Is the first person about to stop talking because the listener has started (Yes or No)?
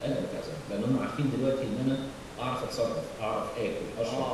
Yes